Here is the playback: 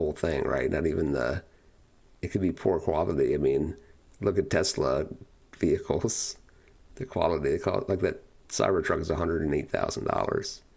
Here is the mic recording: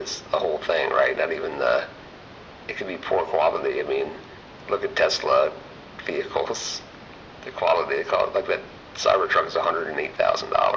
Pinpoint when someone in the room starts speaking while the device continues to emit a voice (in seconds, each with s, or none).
none